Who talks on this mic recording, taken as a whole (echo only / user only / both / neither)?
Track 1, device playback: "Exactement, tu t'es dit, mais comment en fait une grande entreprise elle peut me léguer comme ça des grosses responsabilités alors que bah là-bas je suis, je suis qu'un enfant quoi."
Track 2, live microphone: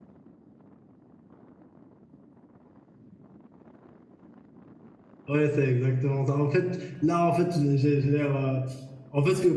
user only